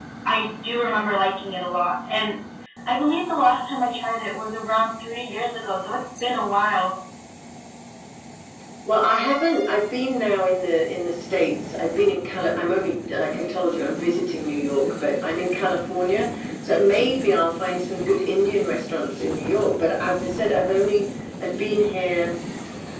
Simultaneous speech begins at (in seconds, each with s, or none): none